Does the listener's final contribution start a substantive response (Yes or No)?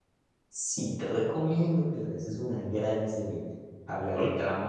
No